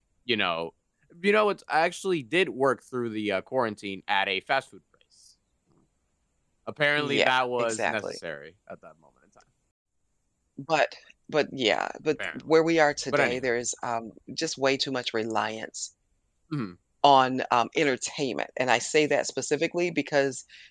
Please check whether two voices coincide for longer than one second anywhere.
Yes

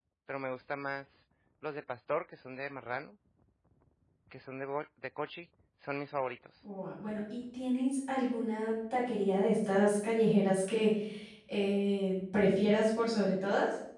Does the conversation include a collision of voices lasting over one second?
No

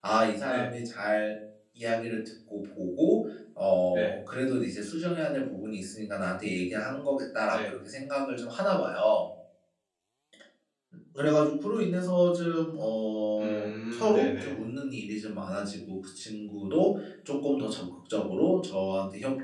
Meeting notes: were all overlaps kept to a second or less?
No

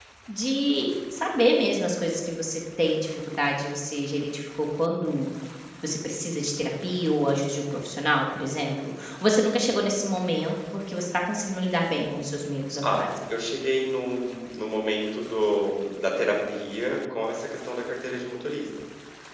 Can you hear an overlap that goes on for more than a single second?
No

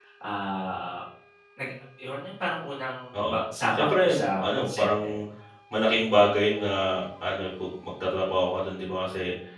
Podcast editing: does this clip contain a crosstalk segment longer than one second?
Yes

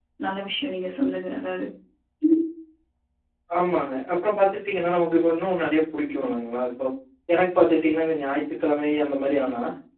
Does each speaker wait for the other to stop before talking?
Yes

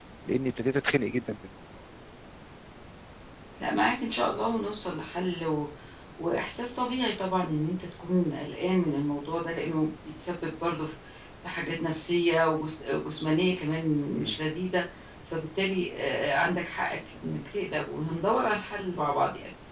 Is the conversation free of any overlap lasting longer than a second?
Yes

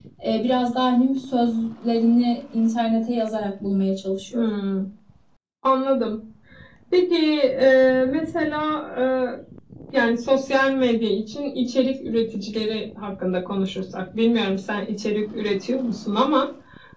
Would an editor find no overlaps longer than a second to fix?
Yes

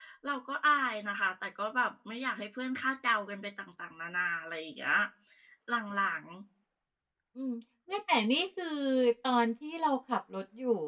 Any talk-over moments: No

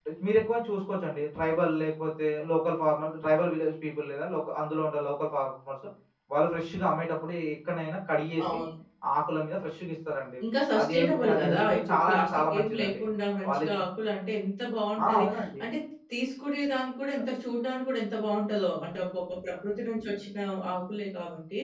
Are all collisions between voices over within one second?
No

